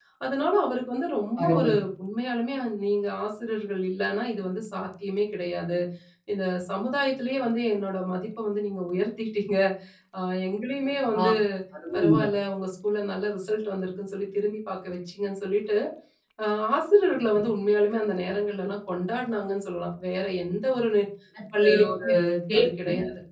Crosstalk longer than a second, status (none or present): none